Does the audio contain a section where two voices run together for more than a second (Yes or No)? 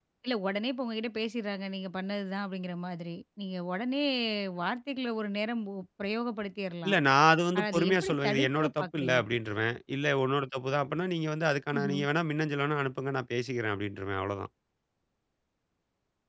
Yes